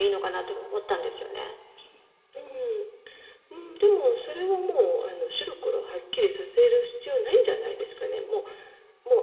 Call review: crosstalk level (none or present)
none